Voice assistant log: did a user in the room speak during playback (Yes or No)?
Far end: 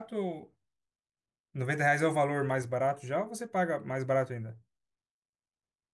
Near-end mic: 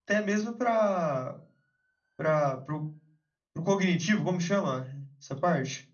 Yes